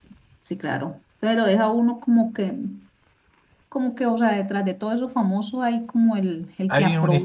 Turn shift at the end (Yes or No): Yes